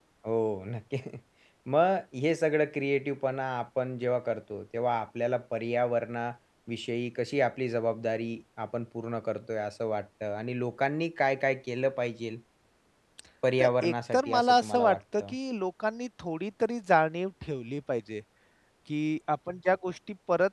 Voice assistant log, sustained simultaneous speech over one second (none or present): present